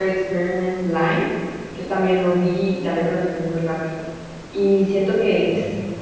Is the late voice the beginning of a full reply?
No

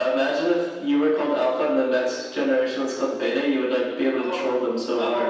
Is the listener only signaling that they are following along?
No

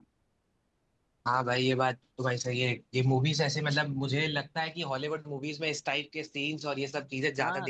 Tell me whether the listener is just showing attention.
No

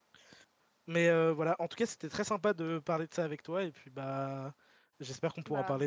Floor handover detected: No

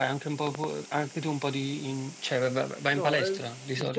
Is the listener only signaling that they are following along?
No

